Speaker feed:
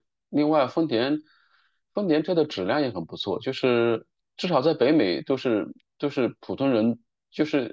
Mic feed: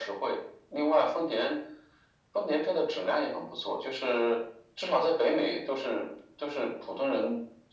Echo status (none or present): present